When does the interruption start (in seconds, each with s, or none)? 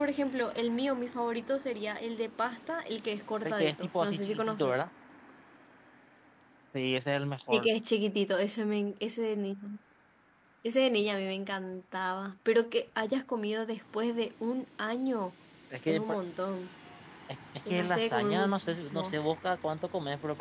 3.4 s